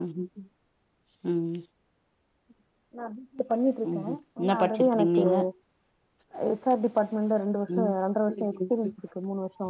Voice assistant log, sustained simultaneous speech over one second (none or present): present